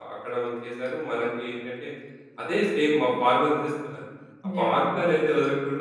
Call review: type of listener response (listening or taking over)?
listening